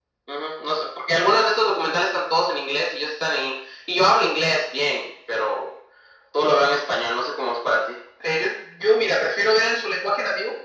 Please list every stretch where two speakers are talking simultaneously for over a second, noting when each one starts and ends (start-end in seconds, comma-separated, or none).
none